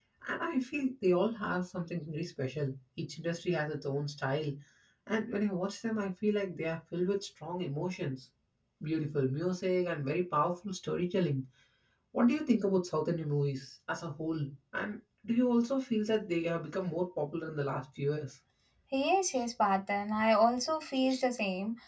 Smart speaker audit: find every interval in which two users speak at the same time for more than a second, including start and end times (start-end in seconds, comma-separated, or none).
none